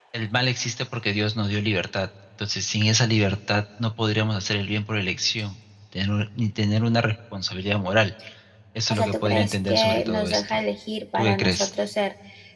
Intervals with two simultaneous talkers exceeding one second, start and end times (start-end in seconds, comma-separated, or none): 8.9-10.6